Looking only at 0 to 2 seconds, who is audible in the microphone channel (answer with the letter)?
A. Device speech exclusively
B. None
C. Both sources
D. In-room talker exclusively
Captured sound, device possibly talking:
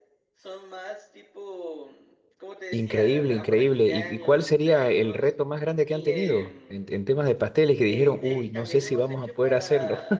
A